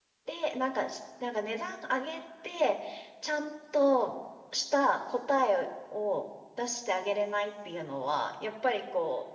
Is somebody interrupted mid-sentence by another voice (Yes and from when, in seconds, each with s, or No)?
No